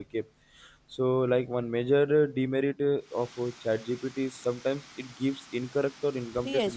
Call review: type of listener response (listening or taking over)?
taking over